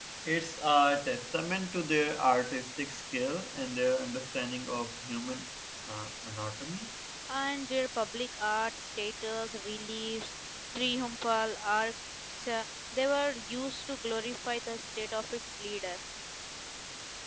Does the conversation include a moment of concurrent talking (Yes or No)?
No